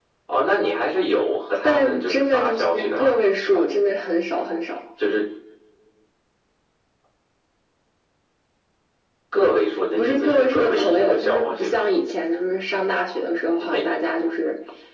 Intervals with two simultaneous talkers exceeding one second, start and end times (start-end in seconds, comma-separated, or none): 1.6-3.6, 10.0-11.8